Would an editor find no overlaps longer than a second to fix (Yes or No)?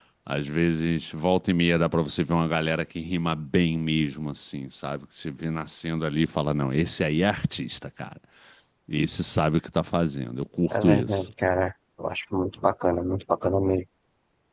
Yes